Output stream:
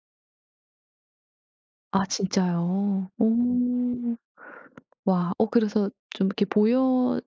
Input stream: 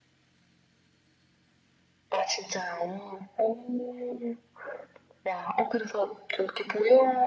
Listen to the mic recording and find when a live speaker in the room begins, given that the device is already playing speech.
none

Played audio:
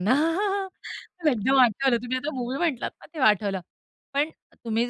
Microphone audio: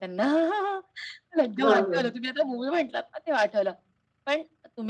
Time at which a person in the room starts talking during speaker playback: 1.6 s

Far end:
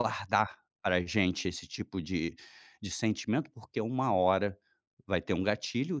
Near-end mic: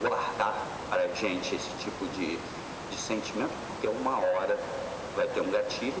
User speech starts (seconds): none

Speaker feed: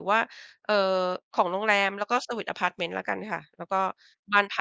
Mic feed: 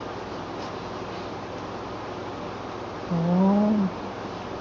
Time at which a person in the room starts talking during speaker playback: 3.1 s

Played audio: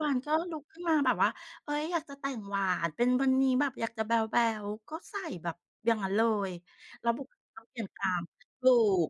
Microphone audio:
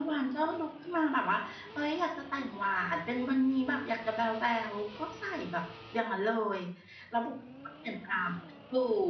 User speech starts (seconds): none

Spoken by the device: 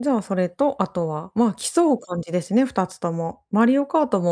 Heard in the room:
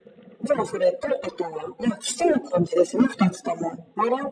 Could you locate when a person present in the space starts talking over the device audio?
none

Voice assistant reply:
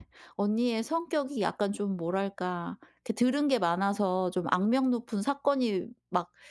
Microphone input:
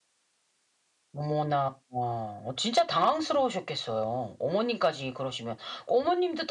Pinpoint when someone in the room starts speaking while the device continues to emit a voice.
1.1 s

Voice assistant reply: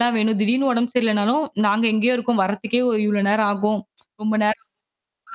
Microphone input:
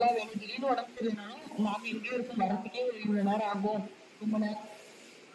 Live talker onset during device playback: none

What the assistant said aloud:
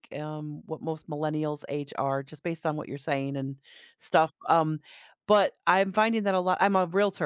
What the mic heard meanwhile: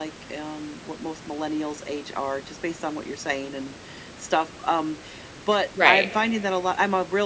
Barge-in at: 5.8 s

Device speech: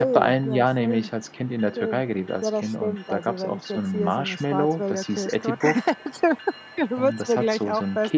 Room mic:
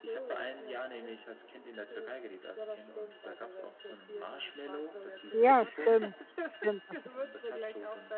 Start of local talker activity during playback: 5.3 s

